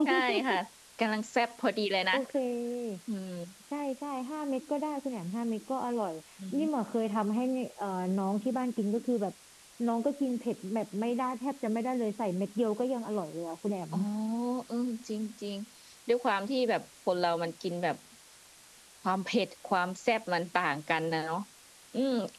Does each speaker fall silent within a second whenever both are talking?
Yes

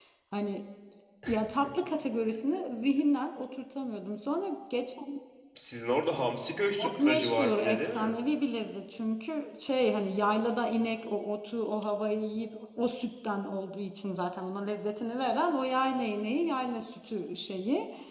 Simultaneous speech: Yes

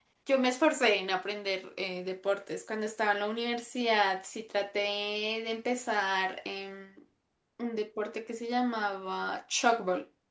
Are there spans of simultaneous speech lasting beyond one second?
No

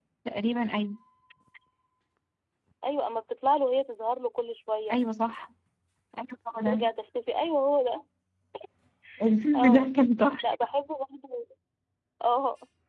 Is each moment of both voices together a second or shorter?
Yes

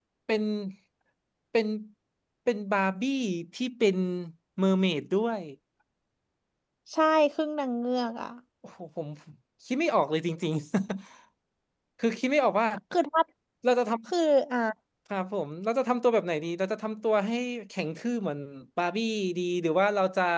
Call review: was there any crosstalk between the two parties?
No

